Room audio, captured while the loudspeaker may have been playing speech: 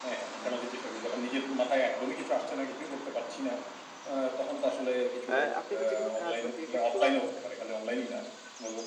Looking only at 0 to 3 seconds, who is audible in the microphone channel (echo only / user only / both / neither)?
echo only